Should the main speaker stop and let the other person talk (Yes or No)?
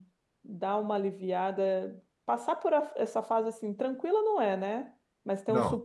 No